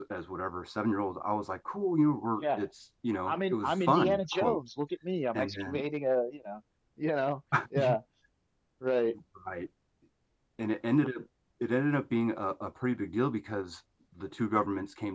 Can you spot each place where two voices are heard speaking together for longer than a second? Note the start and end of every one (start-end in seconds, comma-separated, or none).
3.2-4.6